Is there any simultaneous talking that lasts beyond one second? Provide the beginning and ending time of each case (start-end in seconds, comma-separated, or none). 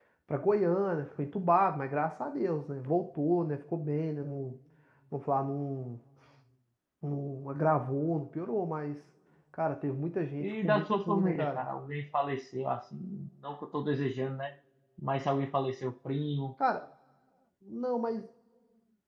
10.4-11.6